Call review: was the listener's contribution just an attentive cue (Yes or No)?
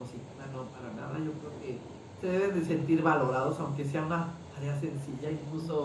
Yes